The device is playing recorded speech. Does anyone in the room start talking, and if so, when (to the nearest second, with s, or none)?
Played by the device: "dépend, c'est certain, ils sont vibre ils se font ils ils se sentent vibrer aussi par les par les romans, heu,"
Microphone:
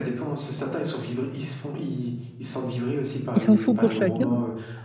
3 s